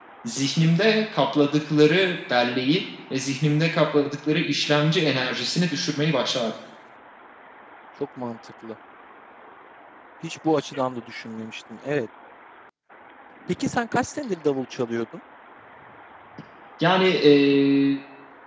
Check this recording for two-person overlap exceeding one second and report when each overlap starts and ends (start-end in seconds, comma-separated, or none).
none